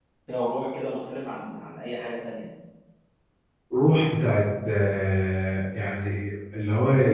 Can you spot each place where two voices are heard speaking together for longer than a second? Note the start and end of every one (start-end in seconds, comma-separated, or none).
none